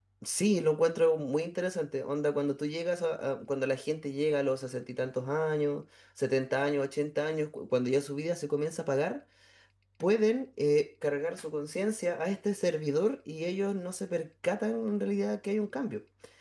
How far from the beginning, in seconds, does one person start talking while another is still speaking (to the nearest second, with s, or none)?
none